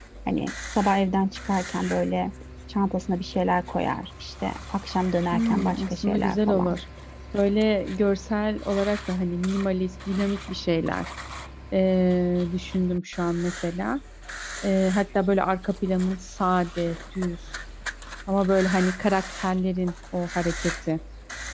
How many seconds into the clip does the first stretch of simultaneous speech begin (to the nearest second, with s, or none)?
5 s